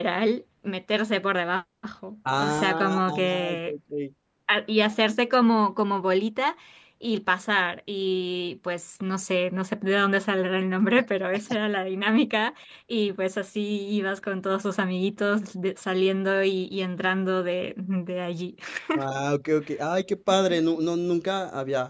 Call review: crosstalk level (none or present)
present